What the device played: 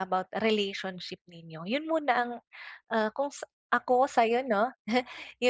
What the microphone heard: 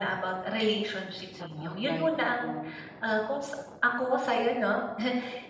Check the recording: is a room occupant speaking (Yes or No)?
Yes